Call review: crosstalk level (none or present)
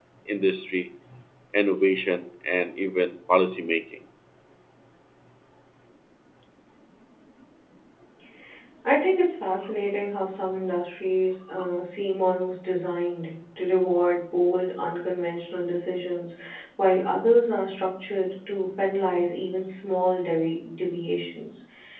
none